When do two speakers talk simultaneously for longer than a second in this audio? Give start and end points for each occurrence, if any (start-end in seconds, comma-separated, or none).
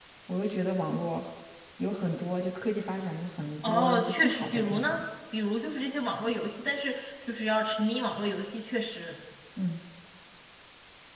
3.6-5.0